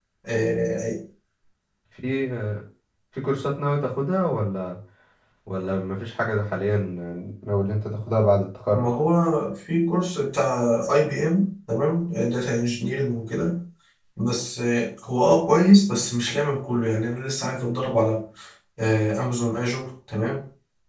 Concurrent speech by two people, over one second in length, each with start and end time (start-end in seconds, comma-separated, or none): none